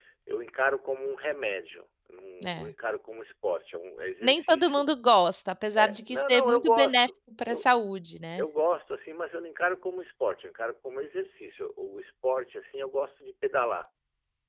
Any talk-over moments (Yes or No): Yes